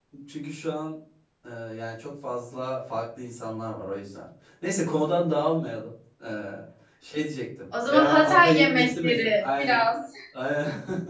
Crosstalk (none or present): present